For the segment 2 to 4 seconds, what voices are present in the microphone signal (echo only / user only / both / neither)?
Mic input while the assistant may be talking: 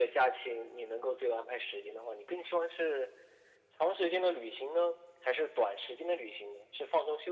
echo only